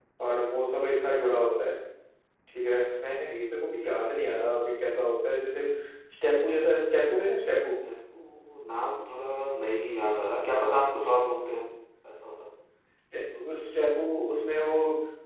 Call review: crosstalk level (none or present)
none